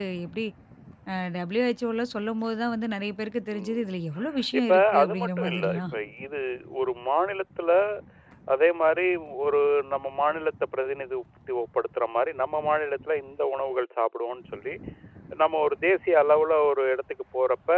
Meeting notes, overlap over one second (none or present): present